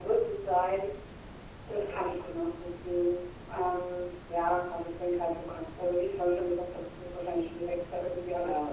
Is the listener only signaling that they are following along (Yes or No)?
Yes